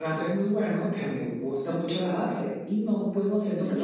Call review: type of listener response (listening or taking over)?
taking over